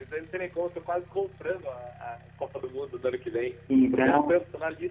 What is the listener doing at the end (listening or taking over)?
listening